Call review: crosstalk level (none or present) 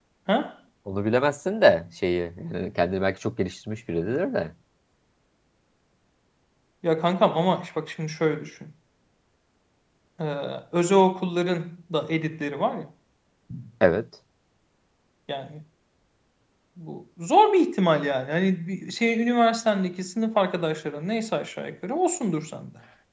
none